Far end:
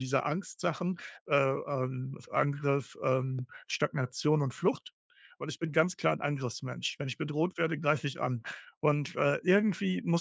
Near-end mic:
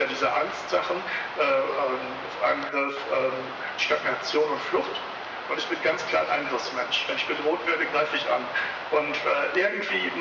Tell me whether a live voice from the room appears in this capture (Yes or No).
No